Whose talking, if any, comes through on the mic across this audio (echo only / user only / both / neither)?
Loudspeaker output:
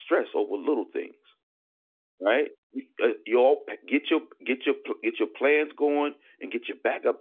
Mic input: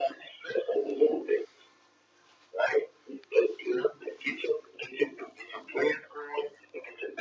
echo only